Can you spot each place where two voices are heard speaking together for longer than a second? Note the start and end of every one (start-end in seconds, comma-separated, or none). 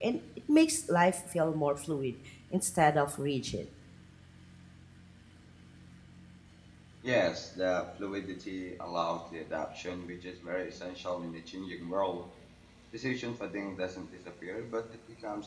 none